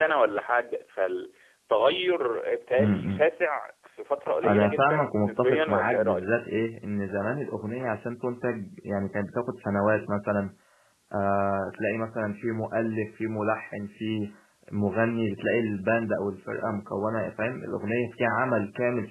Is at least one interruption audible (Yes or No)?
Yes